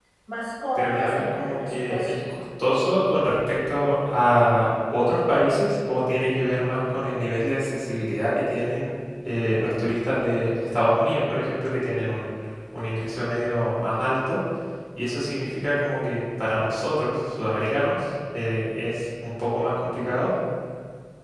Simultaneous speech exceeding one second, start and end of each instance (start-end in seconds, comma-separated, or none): 0.8-2.1